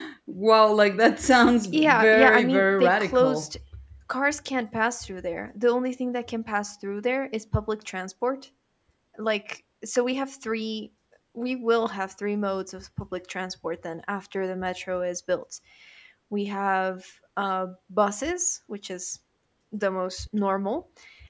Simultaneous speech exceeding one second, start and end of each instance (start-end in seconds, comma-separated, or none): 1.7-3.6